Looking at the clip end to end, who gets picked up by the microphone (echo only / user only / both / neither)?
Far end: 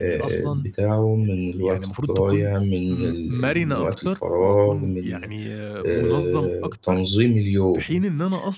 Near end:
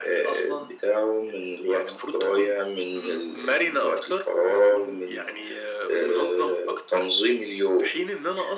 echo only